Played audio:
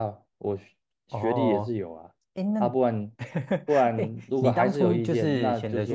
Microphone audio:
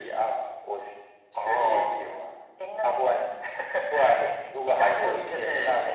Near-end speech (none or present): none